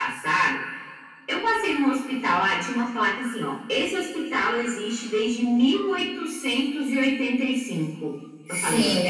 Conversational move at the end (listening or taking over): taking over